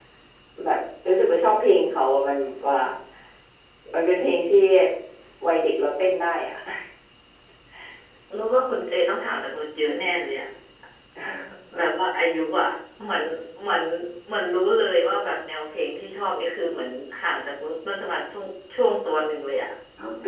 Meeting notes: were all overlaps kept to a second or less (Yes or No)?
Yes